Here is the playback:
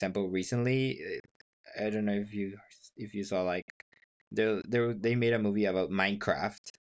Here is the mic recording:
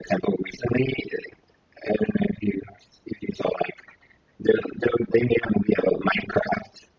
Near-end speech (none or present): none